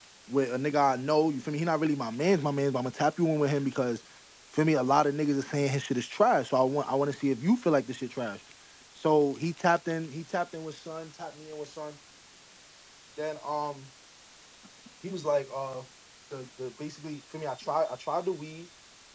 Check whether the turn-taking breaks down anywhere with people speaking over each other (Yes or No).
No